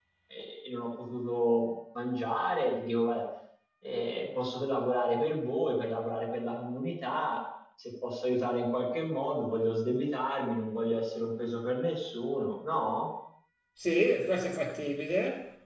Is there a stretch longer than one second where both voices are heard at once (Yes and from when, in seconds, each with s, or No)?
No